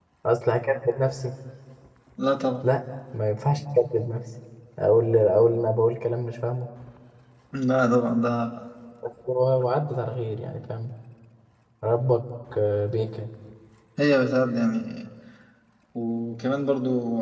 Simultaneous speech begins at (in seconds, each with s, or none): none